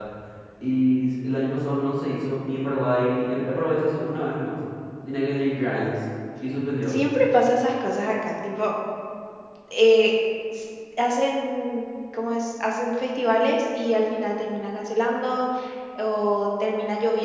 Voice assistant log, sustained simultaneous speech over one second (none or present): none